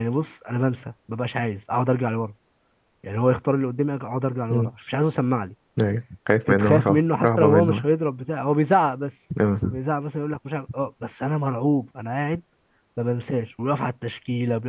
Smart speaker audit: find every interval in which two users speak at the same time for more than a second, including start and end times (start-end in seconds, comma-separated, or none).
6.5-7.8